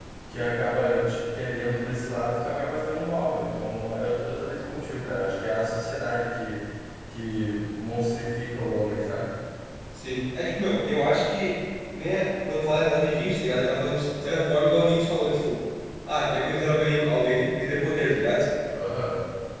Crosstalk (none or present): none